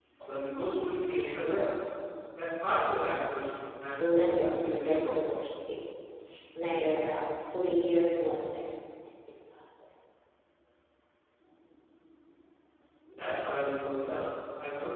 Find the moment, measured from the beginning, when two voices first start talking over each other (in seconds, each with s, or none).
3.9 s